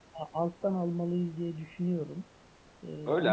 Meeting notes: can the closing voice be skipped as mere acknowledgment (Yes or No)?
No